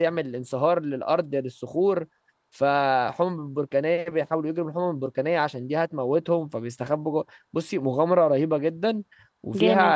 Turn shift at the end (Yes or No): No